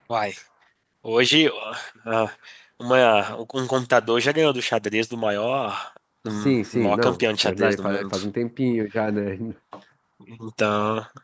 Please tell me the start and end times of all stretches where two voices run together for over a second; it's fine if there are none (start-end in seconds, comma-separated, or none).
6.8-8.2